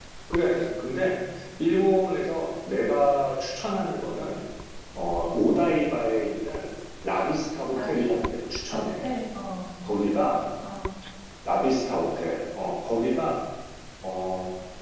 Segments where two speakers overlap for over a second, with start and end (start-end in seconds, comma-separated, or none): none